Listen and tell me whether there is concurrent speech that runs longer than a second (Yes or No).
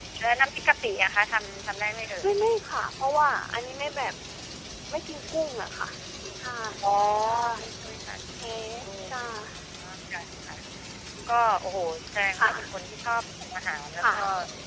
No